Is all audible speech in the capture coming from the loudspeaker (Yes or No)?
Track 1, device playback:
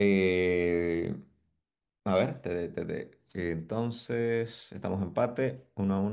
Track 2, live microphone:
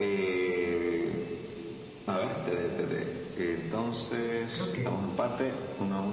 No